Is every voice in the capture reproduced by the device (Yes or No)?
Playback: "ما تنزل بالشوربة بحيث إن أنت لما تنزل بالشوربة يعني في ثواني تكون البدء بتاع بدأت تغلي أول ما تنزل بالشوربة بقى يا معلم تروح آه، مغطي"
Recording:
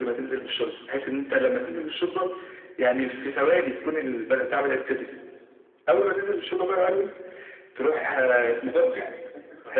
No